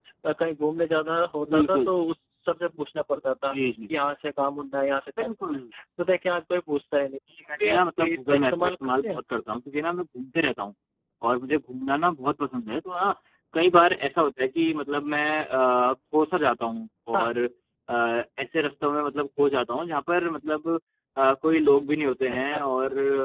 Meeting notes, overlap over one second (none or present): present